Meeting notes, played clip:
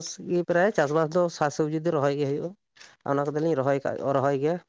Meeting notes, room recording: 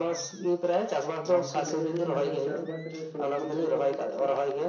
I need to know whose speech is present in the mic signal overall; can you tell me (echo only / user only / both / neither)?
both